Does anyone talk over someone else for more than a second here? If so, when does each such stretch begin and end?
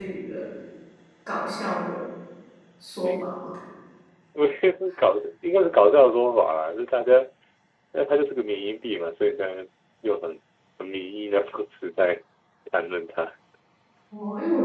none

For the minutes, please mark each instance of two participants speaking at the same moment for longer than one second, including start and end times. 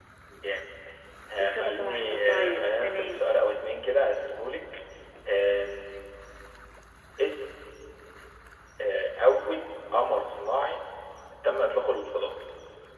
1.4-3.2

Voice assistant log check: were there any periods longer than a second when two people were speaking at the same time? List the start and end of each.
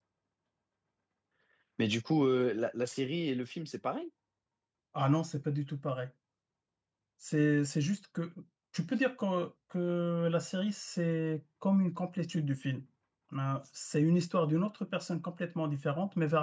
none

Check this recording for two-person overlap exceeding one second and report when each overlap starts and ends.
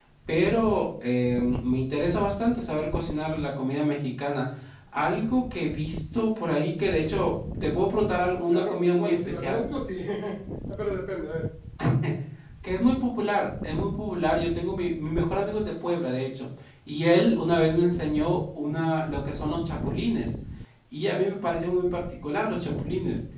8.5-9.7

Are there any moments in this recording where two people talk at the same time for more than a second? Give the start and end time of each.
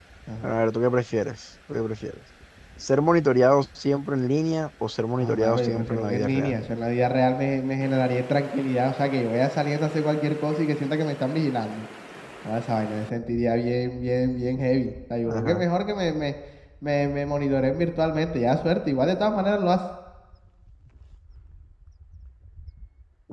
5.2-6.6

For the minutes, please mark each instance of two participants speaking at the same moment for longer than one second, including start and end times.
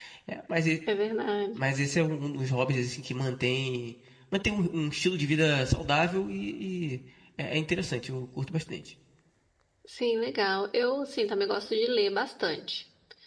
none

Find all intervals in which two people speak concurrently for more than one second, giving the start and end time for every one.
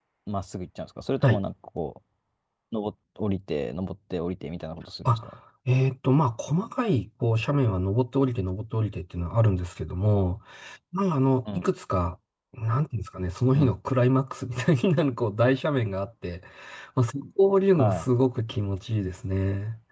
none

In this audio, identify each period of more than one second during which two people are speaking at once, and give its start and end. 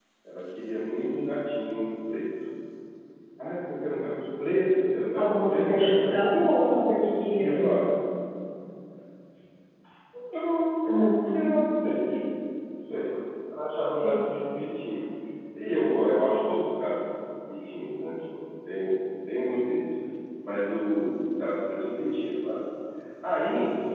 5.2-6.4

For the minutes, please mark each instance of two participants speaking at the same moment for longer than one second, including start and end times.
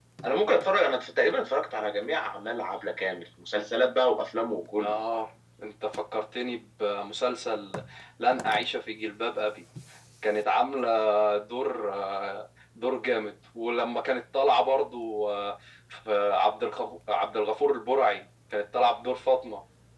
none

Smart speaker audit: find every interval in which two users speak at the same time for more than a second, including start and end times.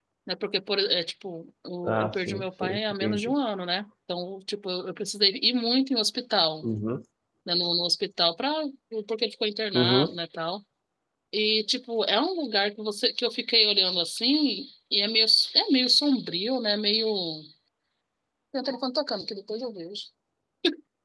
1.8-3.2

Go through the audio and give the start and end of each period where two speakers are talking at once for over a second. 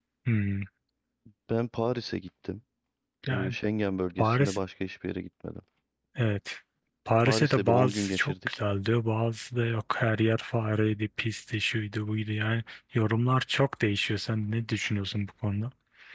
7.2-8.6

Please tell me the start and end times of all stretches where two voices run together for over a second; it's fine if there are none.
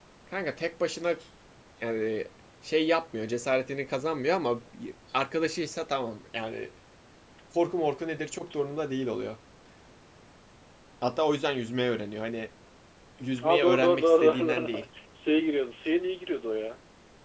13.4-14.7

